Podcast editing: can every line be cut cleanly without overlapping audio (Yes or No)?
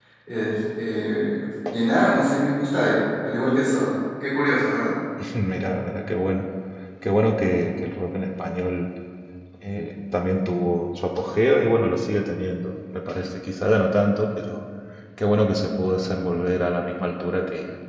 Yes